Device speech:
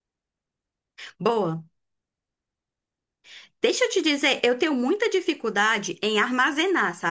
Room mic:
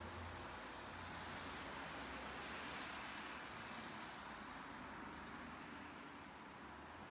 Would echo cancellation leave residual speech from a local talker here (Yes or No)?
No